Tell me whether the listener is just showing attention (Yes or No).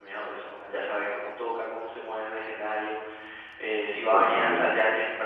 Yes